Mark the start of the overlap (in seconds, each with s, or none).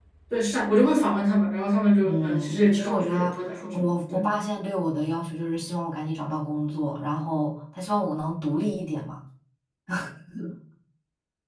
2.0 s